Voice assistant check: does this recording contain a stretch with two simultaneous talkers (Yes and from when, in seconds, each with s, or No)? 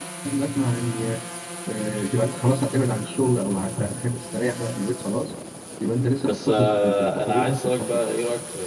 Yes, from 6.3 s